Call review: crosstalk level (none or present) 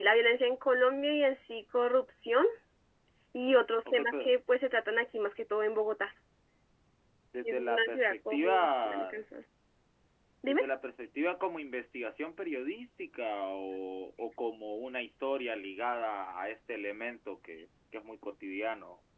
present